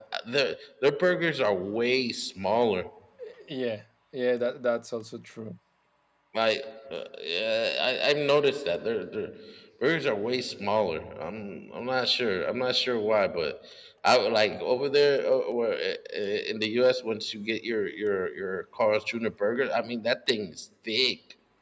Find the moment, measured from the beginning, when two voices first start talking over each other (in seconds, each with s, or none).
none